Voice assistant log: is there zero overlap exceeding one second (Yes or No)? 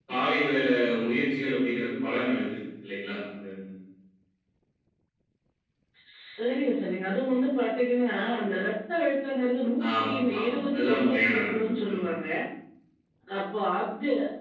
No